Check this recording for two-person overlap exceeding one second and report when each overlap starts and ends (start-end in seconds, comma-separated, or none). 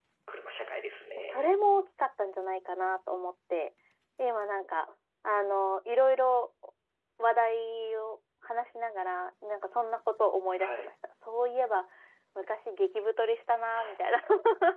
none